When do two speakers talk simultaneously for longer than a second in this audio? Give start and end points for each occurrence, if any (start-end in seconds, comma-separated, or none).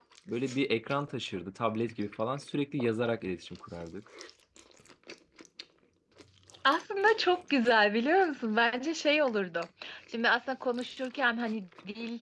none